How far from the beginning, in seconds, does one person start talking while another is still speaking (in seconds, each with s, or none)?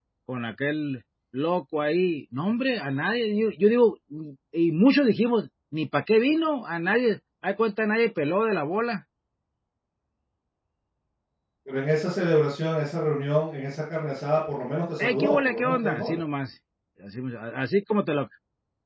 15.0 s